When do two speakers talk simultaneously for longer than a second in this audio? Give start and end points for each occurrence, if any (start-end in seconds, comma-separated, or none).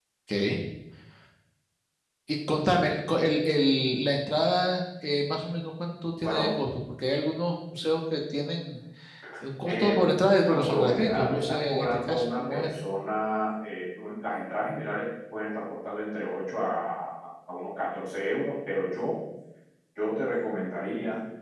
10.4-12.7